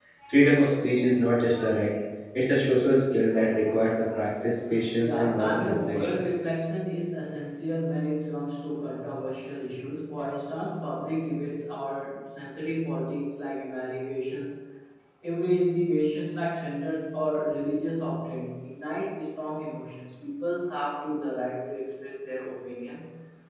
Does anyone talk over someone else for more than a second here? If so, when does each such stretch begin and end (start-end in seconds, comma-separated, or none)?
5.0-6.2